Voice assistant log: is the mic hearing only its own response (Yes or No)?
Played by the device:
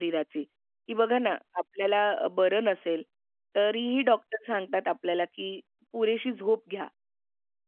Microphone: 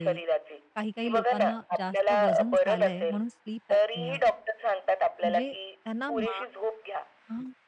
No